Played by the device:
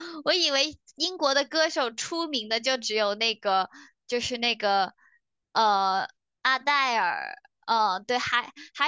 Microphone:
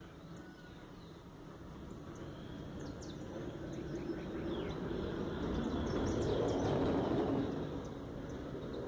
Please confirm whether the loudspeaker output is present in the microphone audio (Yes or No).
No